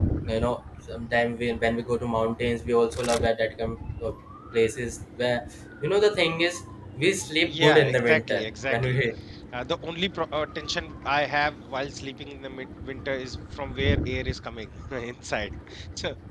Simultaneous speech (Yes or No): Yes